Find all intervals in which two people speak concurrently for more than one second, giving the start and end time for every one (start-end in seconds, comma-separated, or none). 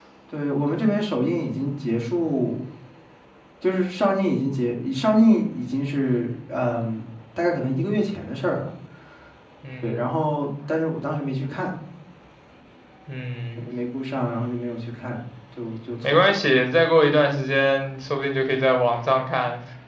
none